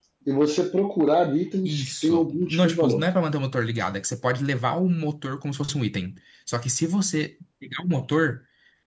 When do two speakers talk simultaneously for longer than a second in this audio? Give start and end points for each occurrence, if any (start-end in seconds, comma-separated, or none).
1.6-3.0